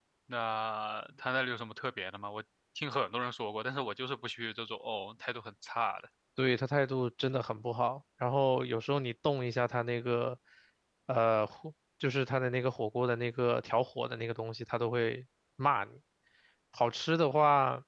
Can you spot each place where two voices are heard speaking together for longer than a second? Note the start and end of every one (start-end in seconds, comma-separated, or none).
none